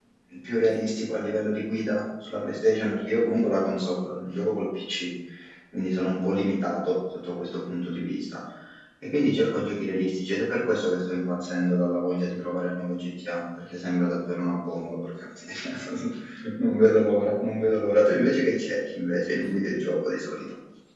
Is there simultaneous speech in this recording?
No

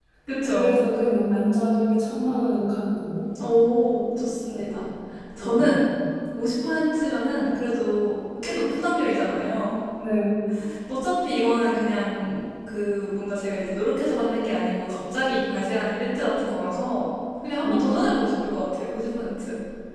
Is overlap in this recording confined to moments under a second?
Yes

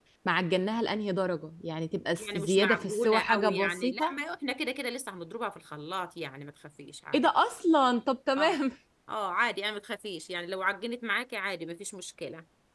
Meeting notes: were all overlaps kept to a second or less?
No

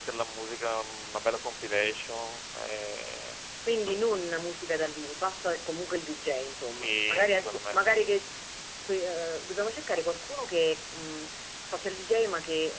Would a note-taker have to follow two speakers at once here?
Yes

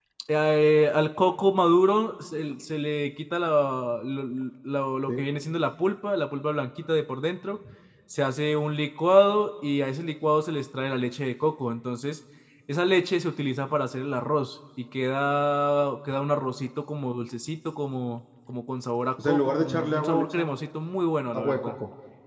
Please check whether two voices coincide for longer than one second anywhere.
Yes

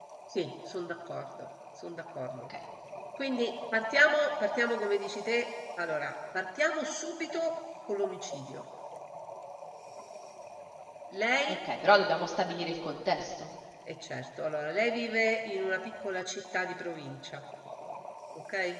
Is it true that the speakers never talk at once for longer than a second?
Yes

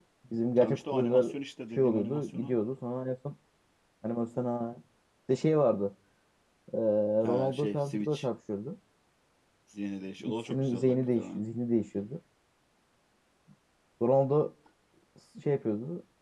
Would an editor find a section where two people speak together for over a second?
Yes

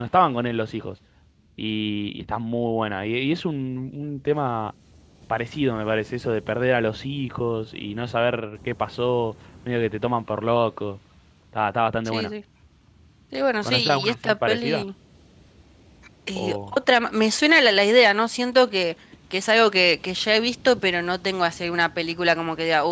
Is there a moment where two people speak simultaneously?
Yes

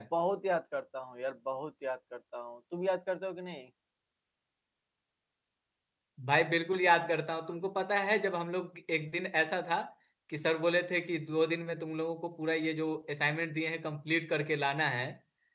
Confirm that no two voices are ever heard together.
Yes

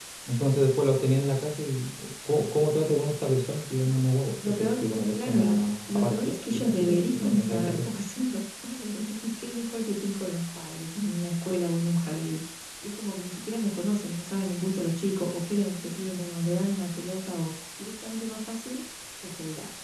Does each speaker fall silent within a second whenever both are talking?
No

